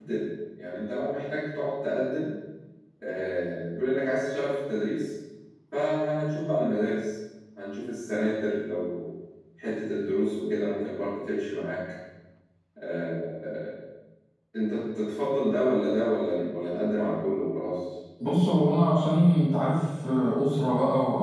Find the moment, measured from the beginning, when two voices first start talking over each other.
none

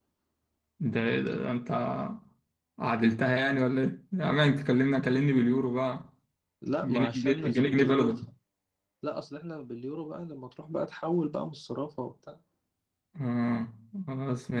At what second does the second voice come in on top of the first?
6.8 s

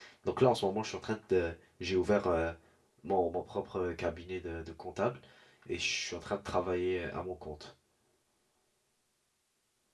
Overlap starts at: none

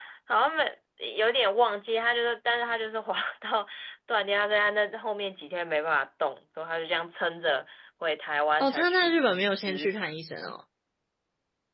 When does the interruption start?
8.6 s

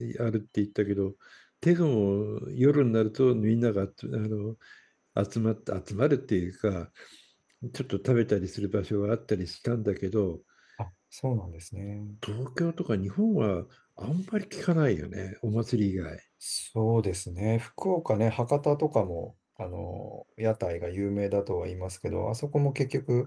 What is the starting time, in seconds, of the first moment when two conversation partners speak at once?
none

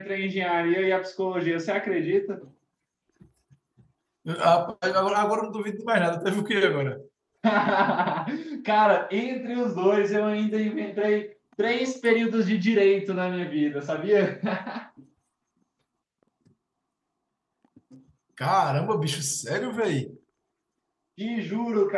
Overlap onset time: none

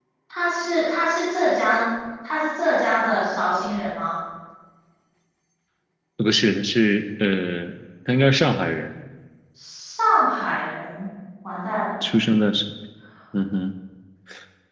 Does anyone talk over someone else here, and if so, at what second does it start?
none

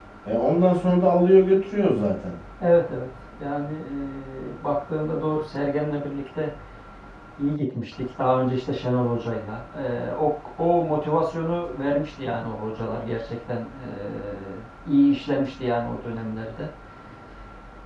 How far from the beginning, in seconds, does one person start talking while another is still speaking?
none

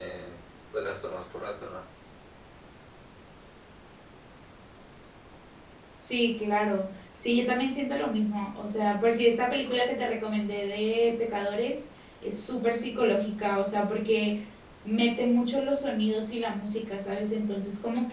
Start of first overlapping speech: none

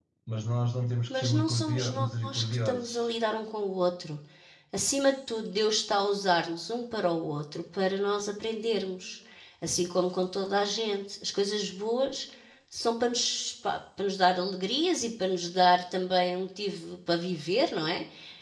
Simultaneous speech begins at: 1.1 s

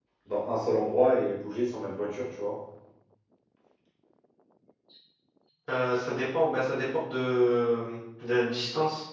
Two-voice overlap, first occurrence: none

